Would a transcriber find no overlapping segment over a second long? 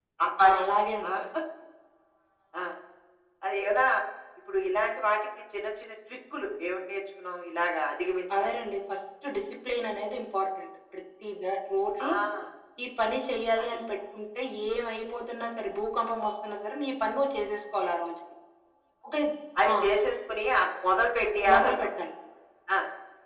Yes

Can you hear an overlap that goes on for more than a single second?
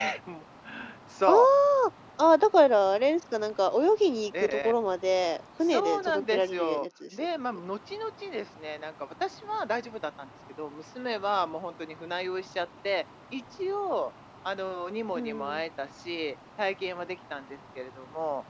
Yes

